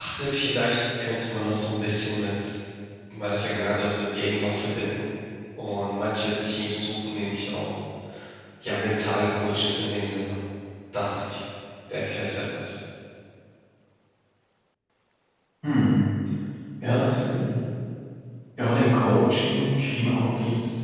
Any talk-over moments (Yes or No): No